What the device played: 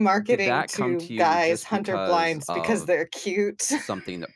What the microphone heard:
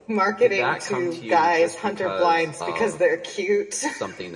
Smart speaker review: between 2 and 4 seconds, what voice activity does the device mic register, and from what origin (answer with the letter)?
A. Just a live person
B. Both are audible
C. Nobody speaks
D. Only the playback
D